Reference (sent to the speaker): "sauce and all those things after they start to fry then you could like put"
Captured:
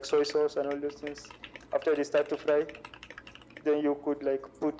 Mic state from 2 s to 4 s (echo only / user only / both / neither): echo only